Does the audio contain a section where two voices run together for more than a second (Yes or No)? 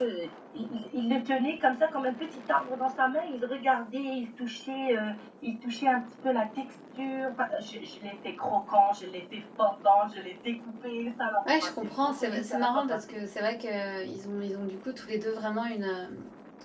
Yes